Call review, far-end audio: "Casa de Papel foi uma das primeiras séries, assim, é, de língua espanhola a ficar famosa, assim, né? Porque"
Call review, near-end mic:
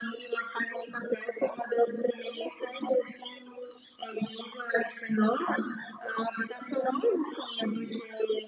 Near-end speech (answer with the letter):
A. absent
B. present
A